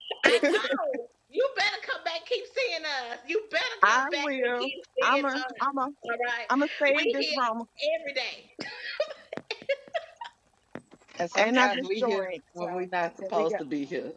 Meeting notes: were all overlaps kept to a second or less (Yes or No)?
No